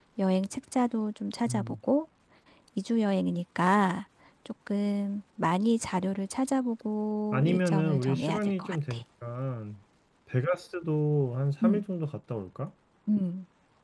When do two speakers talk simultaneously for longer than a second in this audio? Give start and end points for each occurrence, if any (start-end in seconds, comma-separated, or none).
7.3-9.0